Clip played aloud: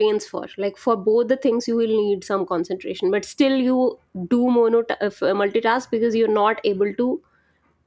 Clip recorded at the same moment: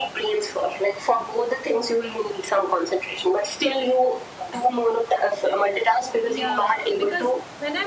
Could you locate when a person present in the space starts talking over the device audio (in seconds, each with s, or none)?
6.2 s